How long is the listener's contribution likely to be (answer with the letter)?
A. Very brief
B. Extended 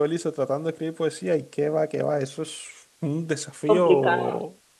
A